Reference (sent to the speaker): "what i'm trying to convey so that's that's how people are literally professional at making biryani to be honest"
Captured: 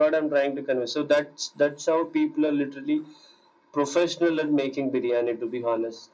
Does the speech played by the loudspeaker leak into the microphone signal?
Yes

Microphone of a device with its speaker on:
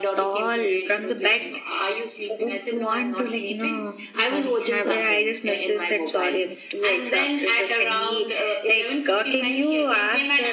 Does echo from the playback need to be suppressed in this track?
Yes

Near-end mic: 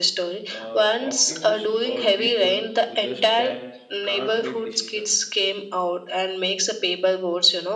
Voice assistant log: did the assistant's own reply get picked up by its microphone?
Yes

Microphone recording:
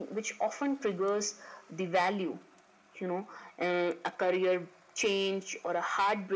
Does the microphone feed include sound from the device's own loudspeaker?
Yes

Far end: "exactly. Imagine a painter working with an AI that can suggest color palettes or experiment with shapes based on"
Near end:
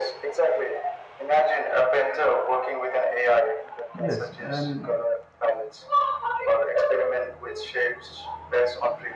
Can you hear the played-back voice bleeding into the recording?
Yes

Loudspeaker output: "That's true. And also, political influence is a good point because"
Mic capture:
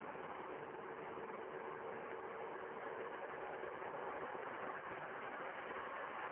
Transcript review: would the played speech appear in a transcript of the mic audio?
No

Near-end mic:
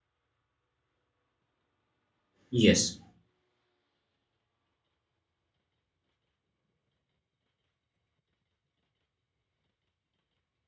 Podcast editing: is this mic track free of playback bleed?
Yes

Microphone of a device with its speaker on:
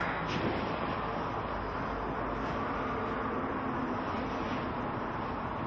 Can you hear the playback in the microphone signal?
No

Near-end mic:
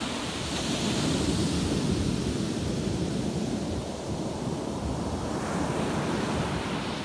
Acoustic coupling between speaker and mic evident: No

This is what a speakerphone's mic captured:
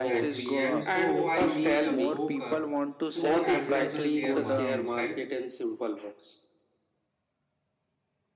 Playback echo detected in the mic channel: Yes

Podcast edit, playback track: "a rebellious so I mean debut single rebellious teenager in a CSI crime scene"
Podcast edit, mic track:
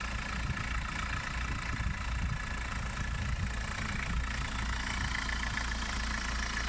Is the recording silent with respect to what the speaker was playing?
Yes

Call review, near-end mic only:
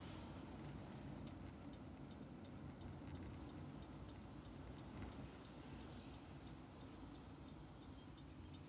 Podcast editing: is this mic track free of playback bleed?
Yes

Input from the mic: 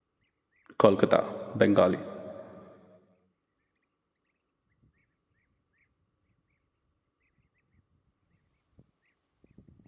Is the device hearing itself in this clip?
No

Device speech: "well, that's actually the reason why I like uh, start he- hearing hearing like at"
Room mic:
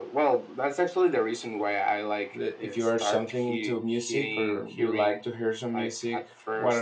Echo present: Yes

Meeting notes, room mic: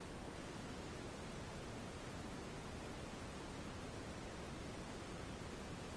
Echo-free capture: Yes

